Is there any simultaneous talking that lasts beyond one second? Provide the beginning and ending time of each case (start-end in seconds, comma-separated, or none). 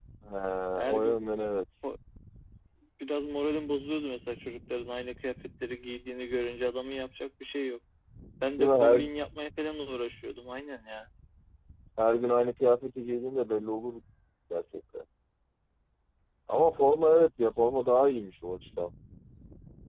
none